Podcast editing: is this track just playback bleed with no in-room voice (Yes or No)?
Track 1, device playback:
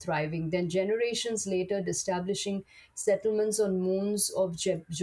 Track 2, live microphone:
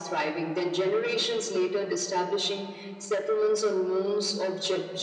Yes